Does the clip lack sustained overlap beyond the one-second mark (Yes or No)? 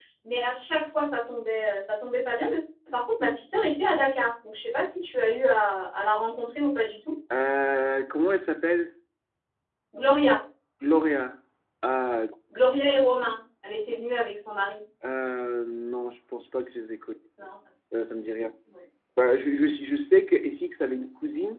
Yes